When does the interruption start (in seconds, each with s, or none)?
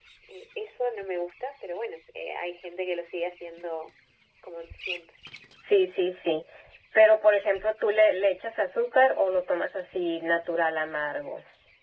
none